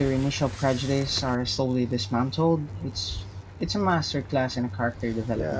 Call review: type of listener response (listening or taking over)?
taking over